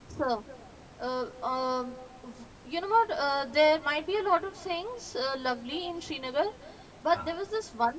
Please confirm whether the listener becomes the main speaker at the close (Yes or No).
No